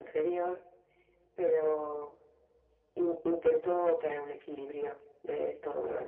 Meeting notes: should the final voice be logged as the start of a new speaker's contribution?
Yes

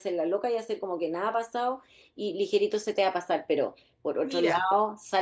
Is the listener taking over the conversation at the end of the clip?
No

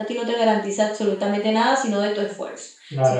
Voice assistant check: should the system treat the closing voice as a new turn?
Yes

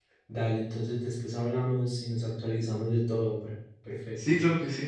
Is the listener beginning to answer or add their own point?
Yes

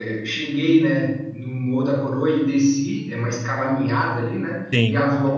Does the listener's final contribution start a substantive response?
No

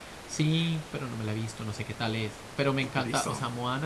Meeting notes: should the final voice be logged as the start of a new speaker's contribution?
No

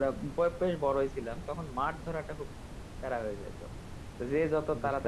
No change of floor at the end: Yes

